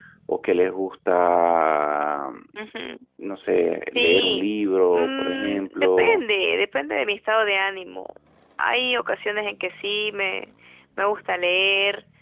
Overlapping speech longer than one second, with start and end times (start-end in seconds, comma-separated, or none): 4.9-6.2